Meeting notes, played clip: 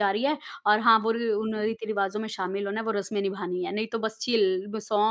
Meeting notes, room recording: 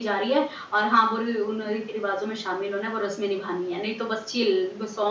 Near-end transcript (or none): none